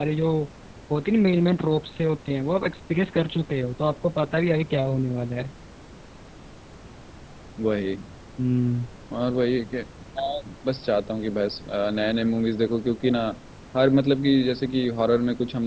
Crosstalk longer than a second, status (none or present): none